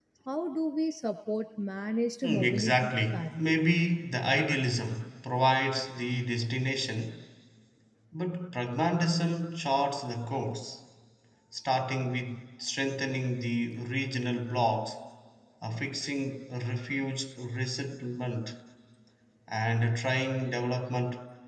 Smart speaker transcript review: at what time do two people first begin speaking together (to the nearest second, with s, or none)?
2 s